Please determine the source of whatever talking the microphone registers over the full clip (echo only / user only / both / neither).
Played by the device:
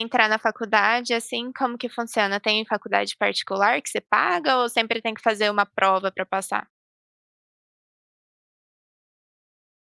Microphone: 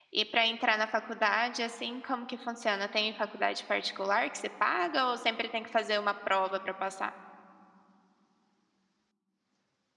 echo only